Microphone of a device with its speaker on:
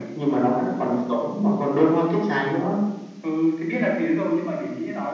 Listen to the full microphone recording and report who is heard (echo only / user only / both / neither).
echo only